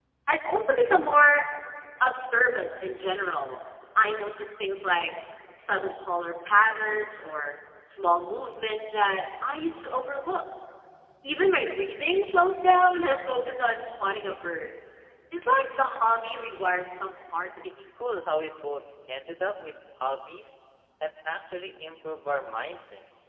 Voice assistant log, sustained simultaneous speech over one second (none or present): none